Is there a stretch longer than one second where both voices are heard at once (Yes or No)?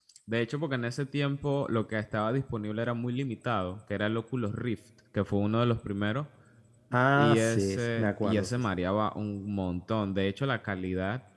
Yes